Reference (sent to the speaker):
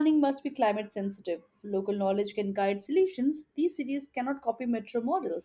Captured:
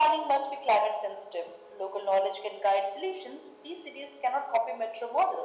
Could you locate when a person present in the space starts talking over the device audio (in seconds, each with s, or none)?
none